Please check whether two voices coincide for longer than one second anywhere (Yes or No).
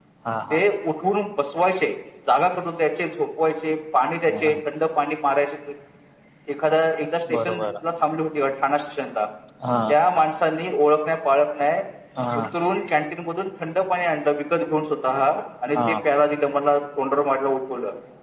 No